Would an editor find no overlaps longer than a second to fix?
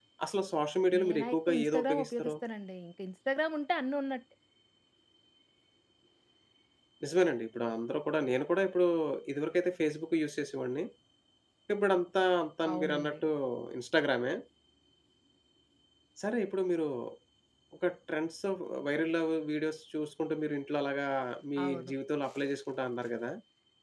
No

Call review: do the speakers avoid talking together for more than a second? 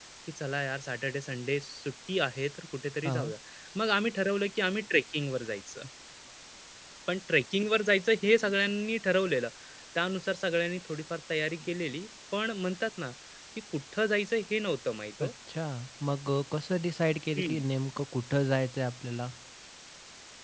Yes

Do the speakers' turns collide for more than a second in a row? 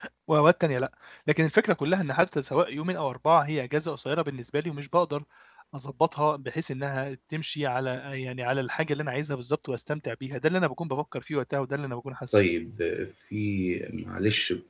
No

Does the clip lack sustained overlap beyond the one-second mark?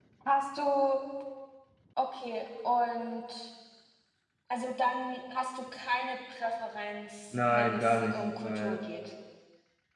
No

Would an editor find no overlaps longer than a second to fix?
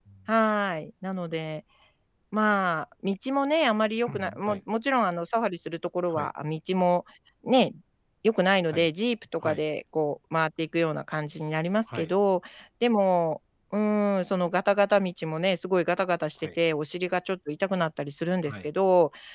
Yes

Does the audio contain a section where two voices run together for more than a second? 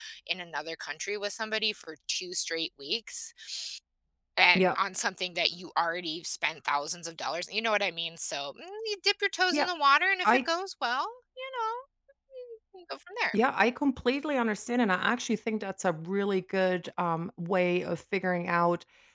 No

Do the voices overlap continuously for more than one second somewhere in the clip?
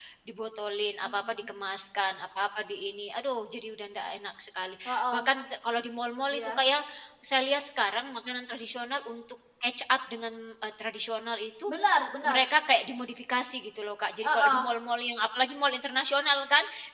No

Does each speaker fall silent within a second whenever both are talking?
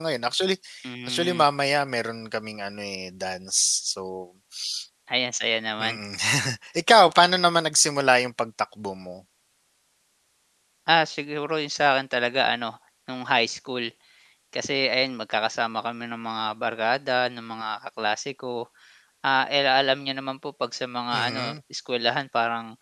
Yes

